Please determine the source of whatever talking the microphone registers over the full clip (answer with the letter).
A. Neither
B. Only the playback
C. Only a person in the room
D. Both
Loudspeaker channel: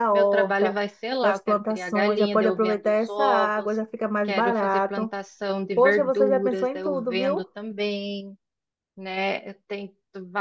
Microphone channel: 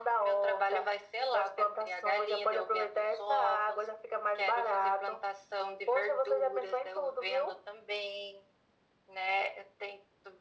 B